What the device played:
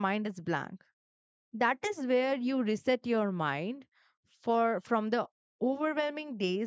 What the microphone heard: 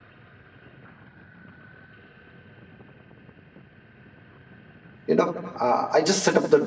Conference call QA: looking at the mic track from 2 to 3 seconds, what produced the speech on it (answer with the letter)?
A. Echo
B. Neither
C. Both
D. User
B